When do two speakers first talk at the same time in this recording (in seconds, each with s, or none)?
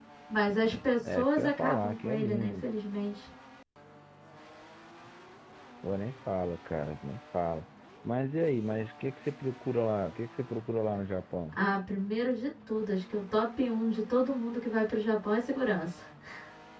1.1 s